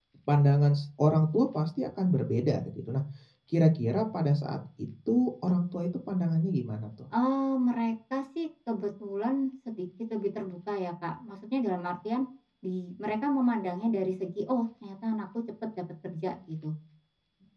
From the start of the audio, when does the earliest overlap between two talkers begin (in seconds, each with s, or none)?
none